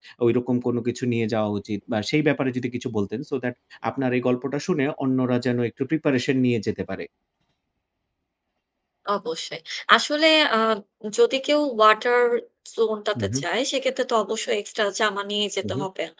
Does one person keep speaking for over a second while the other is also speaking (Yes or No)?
No